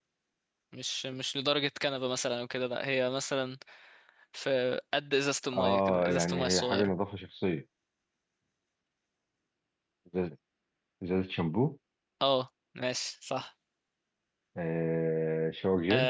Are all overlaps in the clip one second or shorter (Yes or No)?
No